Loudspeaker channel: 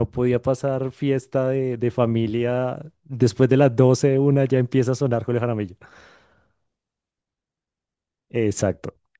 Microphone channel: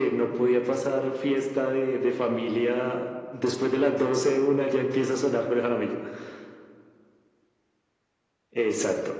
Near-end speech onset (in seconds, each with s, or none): none